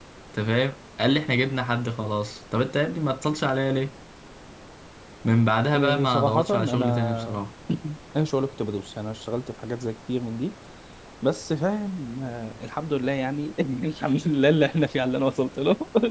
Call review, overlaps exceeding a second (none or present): present